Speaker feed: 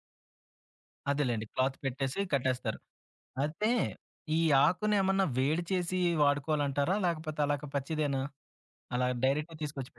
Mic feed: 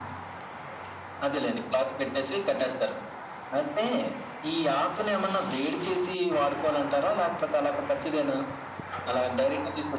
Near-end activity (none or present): none